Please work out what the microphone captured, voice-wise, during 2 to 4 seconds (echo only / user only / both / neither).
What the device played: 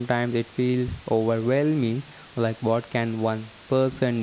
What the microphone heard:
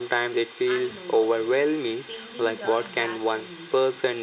both